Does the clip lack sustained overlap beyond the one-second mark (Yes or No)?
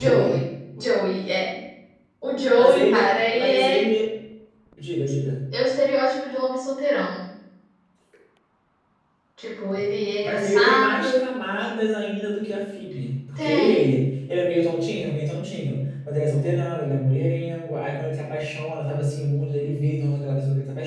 No